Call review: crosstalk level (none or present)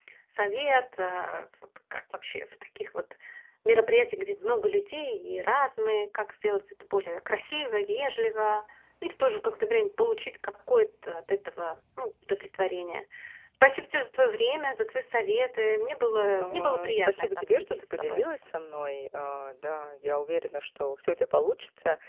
present